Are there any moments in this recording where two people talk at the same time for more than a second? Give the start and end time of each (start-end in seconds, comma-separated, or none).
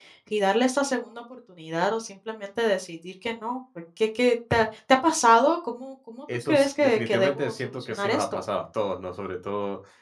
6.5-8.4